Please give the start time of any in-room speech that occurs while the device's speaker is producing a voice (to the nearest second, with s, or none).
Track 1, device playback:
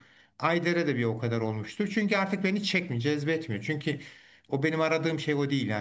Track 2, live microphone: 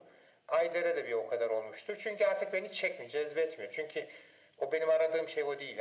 none